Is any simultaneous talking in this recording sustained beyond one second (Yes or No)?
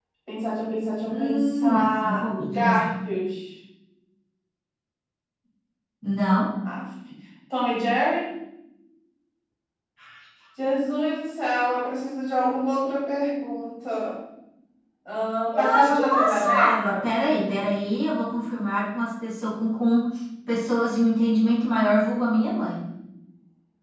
Yes